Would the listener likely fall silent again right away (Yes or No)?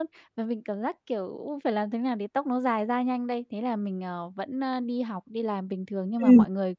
Yes